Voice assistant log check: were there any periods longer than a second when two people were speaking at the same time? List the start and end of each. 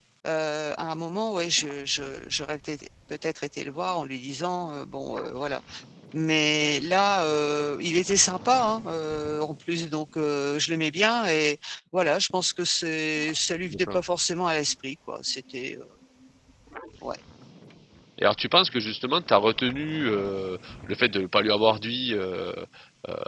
none

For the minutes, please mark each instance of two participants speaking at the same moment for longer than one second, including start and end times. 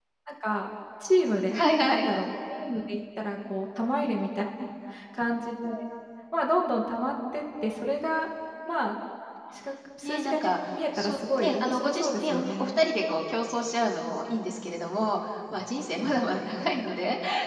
10.0-12.8

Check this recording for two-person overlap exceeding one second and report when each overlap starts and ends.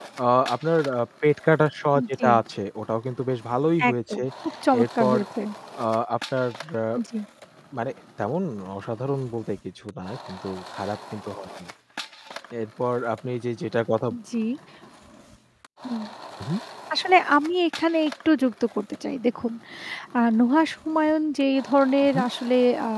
none

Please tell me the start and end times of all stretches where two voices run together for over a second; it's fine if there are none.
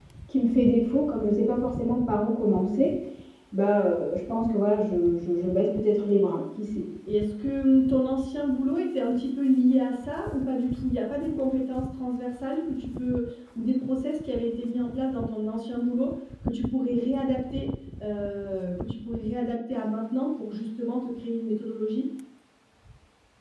none

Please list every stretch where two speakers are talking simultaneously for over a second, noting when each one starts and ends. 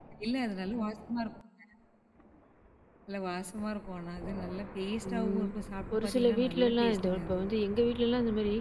5.9-7.4

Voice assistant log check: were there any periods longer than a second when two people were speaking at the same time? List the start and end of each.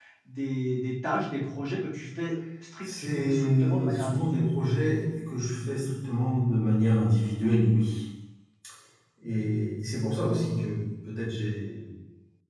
2.8-4.5

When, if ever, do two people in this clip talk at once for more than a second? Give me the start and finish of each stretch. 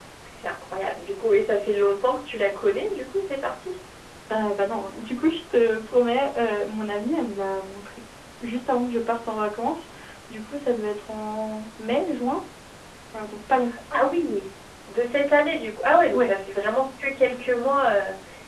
none

